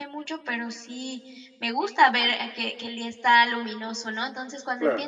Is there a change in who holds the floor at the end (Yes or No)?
No